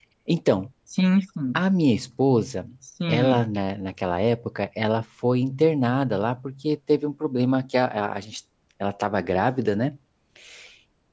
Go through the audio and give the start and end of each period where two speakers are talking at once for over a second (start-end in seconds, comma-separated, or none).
none